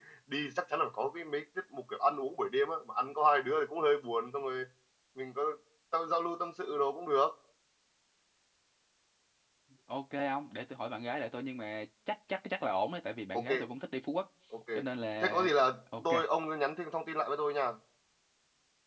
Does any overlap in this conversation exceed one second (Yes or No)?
No